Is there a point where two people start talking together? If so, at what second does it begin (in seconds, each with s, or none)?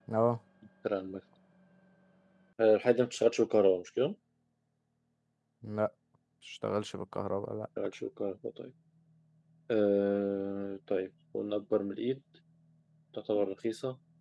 none